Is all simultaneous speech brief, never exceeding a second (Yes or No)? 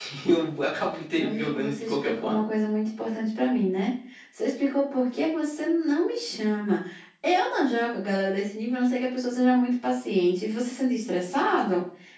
No